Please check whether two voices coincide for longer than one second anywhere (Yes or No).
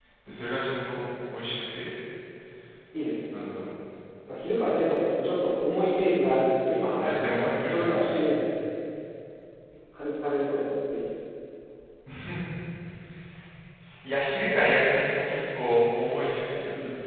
Yes